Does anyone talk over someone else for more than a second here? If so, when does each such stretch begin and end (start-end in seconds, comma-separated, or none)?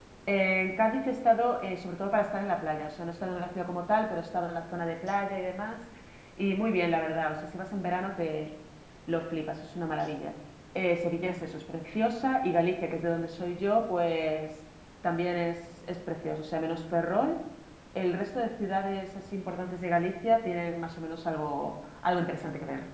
none